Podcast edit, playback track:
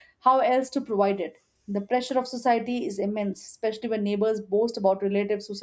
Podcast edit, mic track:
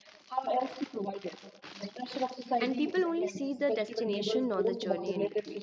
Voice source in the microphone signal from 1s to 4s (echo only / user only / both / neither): both